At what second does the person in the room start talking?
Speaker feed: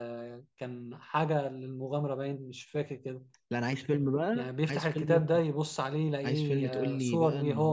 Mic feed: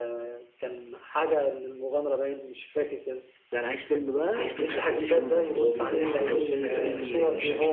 4.3 s

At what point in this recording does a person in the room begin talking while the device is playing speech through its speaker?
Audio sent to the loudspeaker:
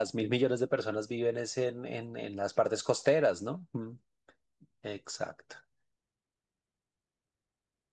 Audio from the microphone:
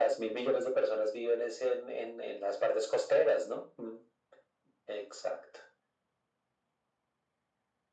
none

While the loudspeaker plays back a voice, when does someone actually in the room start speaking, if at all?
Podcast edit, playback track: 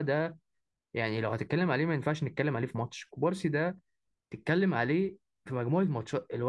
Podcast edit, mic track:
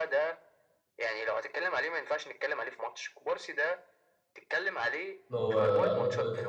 5.3 s

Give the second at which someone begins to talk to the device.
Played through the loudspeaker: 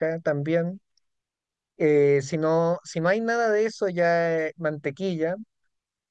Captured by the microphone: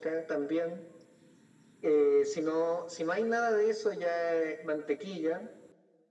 none

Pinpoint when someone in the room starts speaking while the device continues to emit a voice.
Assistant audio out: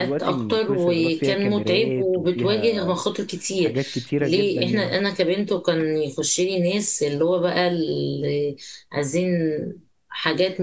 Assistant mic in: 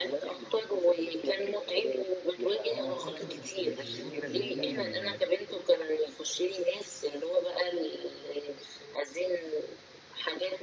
2.7 s

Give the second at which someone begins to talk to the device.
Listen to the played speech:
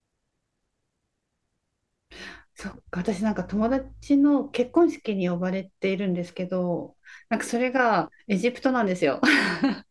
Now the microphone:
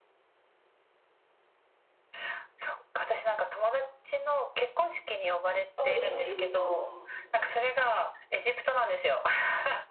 5.8 s

